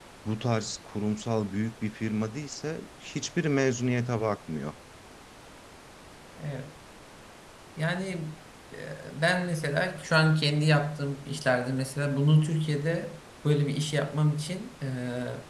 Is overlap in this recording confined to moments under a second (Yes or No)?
Yes